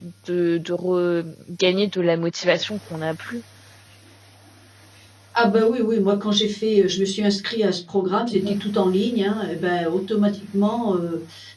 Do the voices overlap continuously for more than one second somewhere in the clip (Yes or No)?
No